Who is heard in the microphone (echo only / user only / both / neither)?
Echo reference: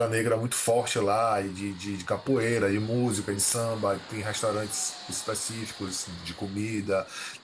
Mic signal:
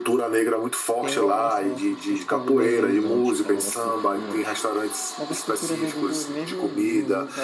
both